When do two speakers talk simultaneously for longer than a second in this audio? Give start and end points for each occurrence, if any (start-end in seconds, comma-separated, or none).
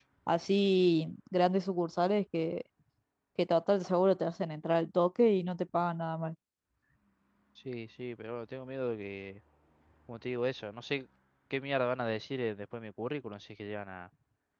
none